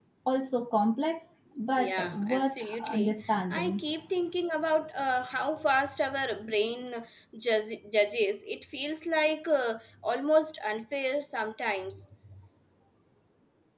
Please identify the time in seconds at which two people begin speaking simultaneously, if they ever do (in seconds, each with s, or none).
1.8 s